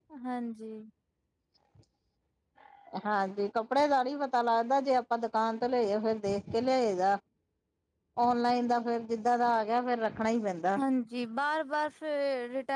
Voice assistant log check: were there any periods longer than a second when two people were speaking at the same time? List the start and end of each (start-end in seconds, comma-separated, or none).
none